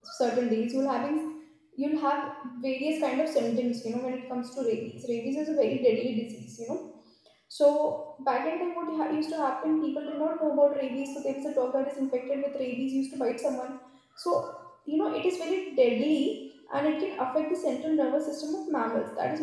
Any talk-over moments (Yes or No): No